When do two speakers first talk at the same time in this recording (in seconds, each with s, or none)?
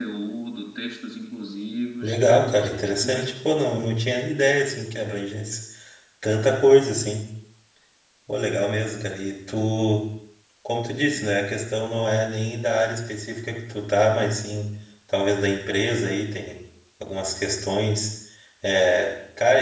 2.0 s